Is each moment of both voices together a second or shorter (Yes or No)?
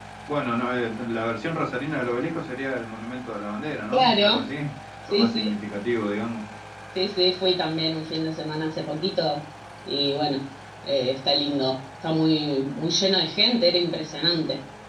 Yes